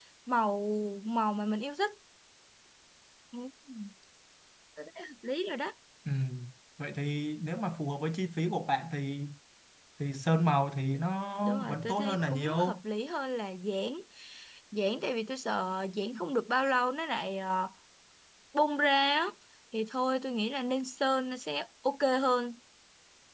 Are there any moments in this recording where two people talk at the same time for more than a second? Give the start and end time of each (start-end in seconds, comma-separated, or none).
11.4-12.8